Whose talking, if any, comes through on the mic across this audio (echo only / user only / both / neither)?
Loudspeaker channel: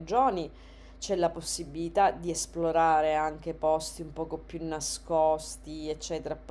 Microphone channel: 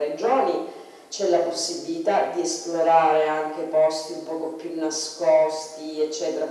echo only